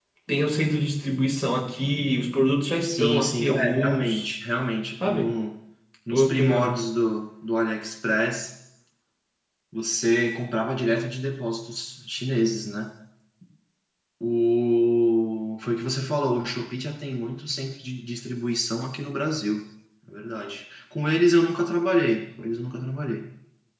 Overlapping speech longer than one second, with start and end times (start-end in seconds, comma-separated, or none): 2.8-4.3